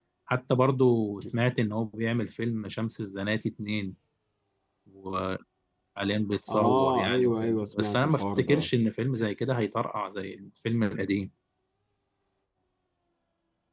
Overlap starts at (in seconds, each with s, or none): 6.5 s